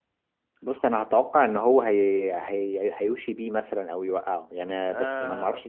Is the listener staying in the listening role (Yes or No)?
No